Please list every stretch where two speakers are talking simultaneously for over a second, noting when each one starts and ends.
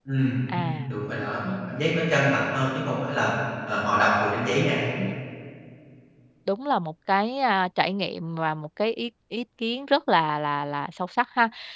none

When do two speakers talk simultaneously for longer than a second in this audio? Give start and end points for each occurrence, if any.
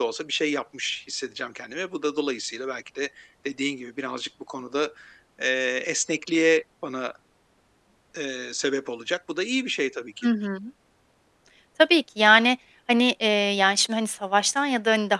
none

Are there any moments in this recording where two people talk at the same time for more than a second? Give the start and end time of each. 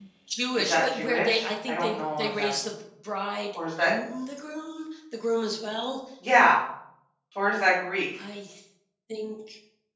0.6-2.5

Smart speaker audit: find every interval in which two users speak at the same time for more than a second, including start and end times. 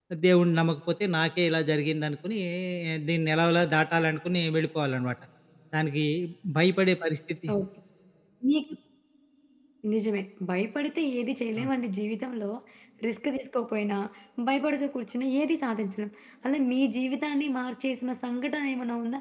none

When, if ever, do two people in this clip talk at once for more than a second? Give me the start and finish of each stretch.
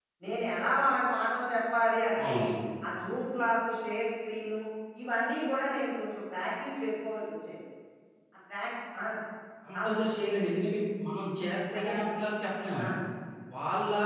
none

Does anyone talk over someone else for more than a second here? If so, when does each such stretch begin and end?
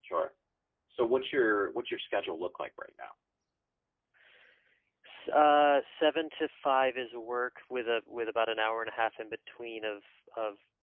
none

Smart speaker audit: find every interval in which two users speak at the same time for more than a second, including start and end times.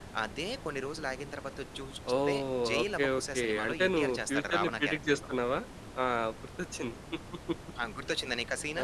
2.2-5.2

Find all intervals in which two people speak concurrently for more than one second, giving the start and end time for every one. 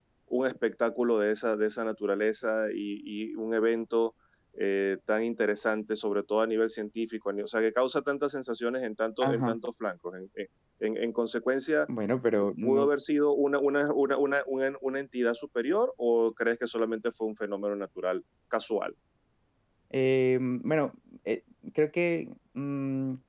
none

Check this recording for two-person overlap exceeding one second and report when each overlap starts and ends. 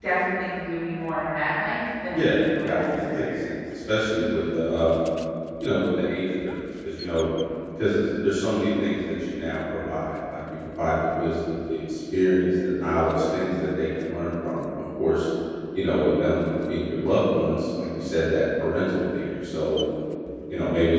2.1-3.4

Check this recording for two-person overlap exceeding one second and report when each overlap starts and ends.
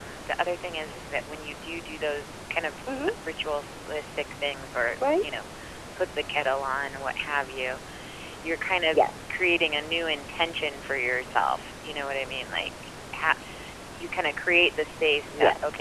none

